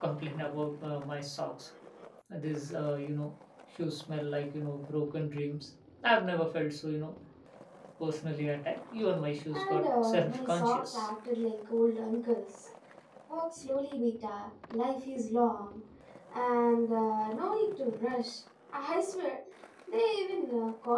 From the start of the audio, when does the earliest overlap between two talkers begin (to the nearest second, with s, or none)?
10 s